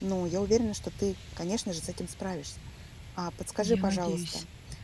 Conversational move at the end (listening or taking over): listening